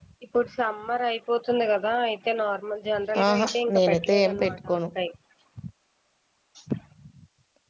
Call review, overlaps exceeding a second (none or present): present